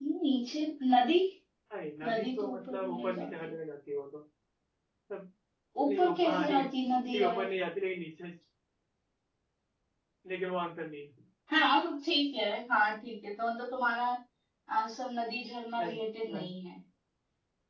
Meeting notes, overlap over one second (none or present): present